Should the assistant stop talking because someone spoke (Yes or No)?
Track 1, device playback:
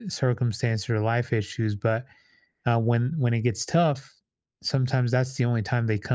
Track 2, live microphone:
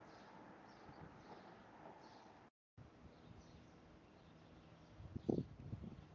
No